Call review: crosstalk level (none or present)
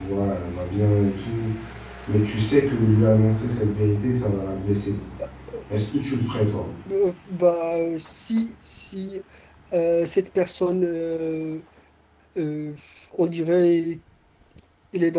none